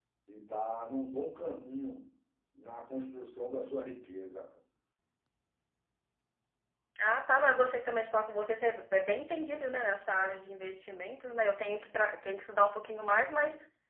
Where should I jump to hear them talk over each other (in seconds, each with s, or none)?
none